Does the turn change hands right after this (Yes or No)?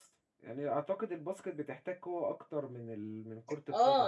Yes